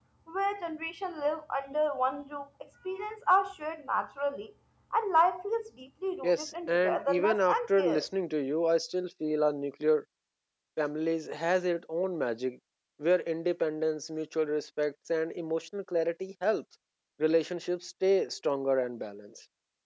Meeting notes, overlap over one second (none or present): present